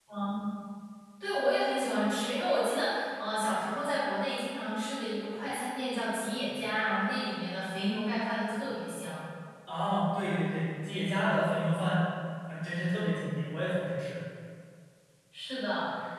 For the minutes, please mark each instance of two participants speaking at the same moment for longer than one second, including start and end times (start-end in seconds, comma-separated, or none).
none